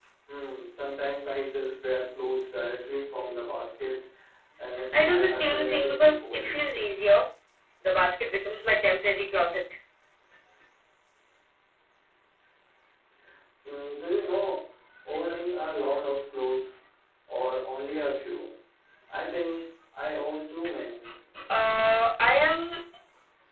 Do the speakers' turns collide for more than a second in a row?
Yes, from 4.9 s

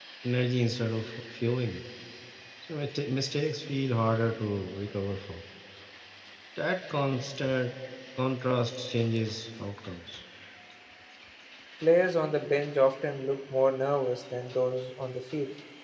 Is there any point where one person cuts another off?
No

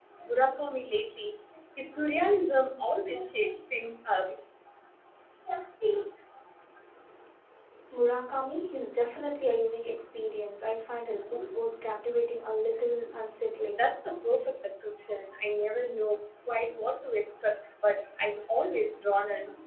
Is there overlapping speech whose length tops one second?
No

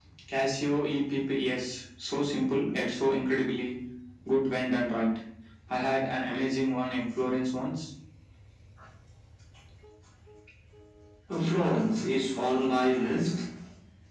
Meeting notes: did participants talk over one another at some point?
No

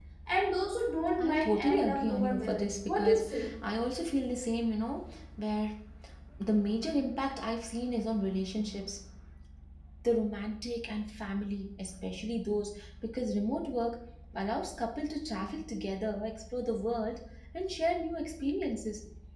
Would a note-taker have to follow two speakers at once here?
Yes, from 1.2 s

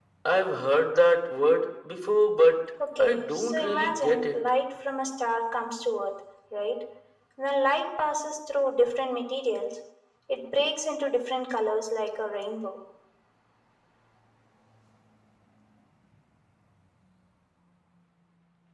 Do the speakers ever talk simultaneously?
Yes, from 2.8 s

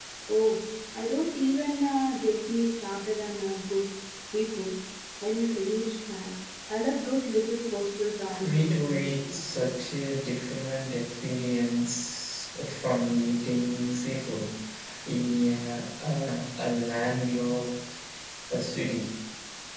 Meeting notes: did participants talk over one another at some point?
Yes, from 8.3 s

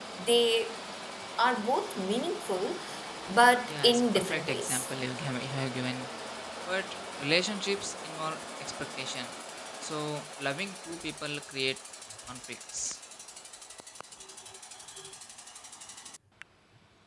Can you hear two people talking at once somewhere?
Yes, from 3.7 s

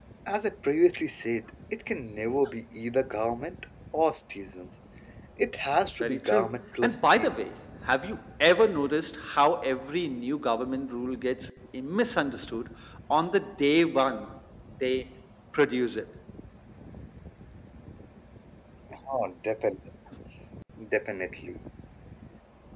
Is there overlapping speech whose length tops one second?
Yes, from 6.0 s

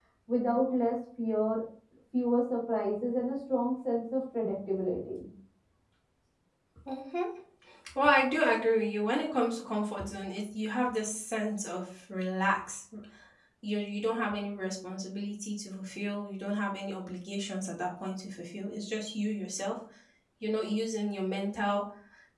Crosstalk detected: No

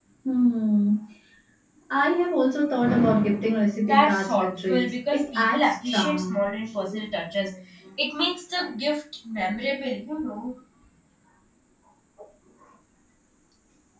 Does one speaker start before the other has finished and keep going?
Yes, from 3.9 s

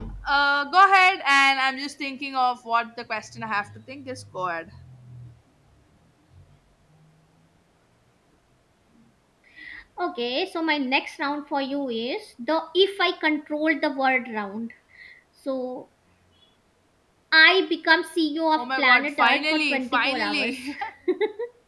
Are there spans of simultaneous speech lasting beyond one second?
Yes, from 18.6 s

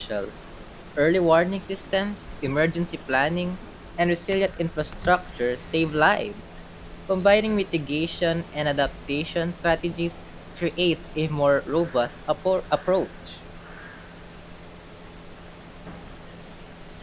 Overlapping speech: No

